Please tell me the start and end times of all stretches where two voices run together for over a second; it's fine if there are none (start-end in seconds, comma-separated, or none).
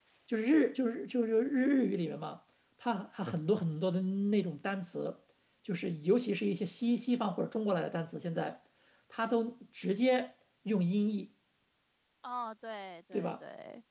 none